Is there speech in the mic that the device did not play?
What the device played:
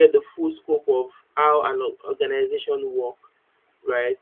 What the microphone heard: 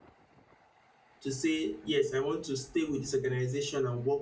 Yes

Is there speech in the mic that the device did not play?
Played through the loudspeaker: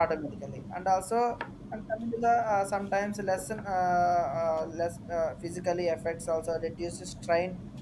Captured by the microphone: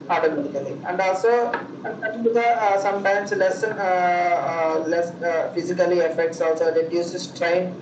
No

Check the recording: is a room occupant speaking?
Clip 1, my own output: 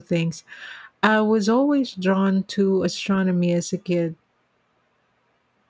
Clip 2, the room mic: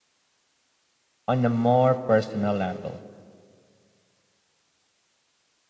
Yes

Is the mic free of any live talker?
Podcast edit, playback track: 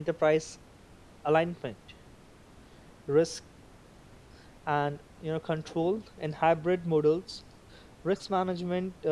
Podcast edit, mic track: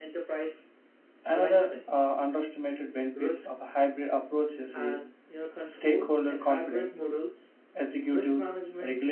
No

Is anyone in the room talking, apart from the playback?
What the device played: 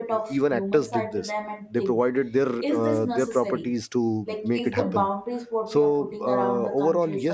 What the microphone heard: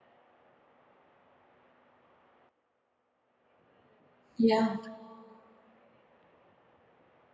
Yes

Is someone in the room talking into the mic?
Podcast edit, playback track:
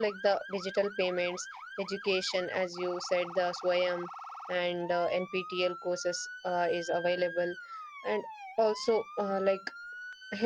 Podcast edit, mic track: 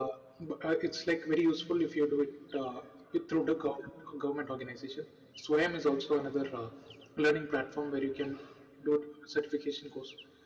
Yes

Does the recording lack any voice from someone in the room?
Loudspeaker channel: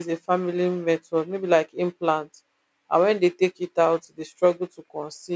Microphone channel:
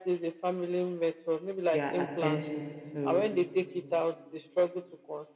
No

